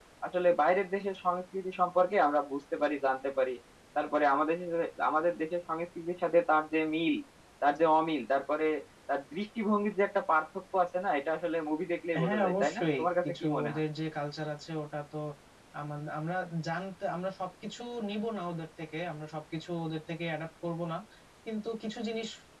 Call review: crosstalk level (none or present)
present